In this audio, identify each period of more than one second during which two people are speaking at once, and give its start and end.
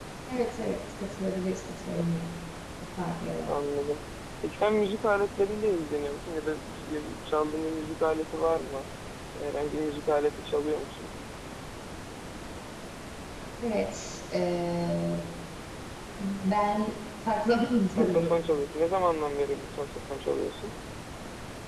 none

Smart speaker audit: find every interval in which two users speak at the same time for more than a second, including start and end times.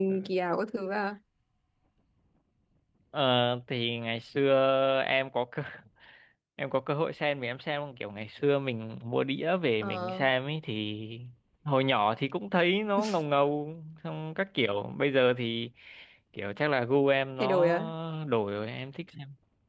none

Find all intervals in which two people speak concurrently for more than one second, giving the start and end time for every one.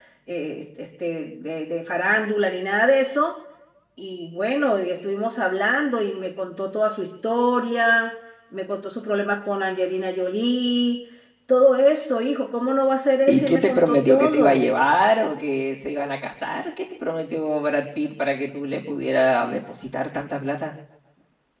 13.3-14.6

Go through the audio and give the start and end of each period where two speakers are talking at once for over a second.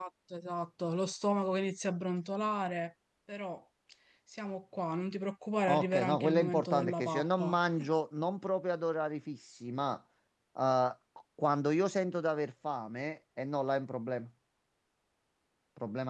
5.7-7.5

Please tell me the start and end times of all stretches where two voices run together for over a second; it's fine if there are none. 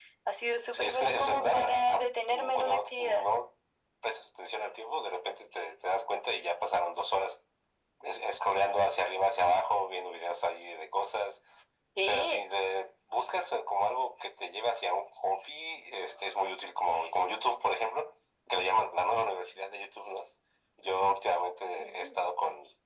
0.7-3.2

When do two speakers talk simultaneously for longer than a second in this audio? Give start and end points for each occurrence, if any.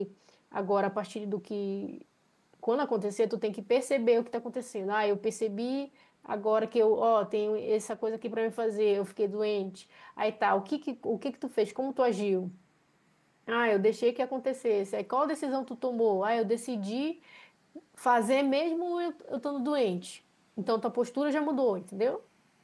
none

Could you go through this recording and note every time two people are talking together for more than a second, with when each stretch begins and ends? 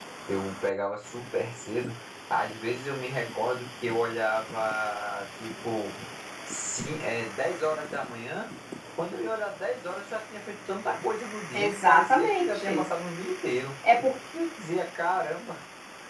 11.5-12.9

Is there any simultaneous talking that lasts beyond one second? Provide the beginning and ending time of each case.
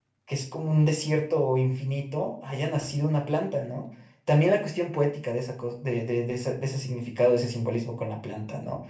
none

